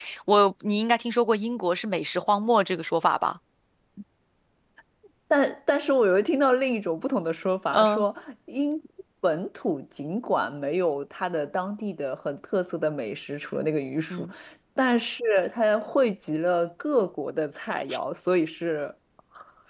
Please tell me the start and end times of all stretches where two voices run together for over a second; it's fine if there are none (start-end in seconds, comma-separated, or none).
none